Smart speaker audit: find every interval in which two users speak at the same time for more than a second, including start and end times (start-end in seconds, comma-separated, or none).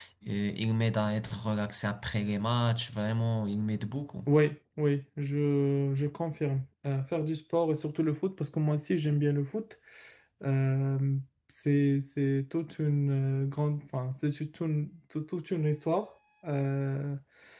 none